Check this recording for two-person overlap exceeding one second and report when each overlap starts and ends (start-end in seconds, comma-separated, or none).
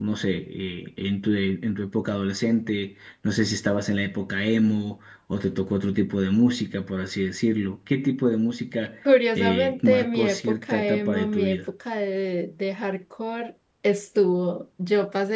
9.3-11.6